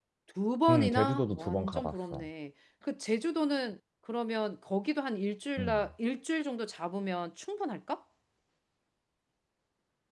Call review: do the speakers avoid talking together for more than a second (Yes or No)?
No